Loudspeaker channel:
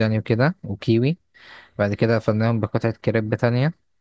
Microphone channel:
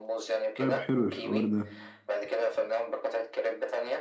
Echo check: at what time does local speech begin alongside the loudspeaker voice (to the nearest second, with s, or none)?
1 s